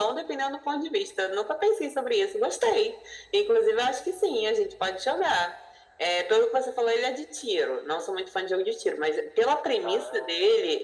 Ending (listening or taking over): listening